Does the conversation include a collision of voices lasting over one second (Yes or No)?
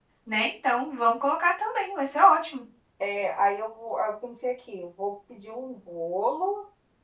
No